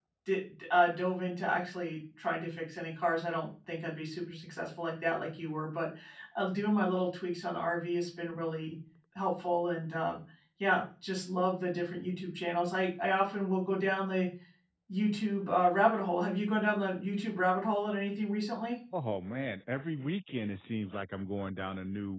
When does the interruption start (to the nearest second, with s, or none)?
none